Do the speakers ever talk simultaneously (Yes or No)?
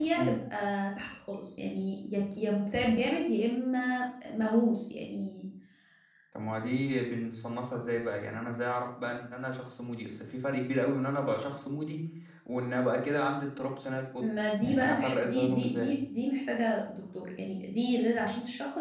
Yes